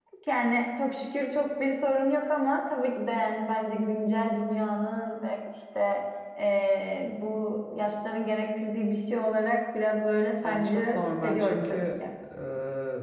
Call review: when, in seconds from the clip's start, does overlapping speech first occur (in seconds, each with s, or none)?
10.4 s